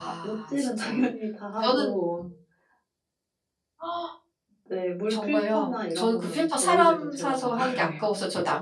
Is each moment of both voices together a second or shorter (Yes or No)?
No